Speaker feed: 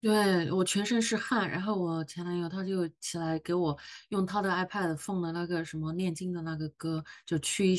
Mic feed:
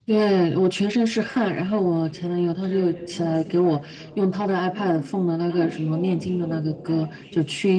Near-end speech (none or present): present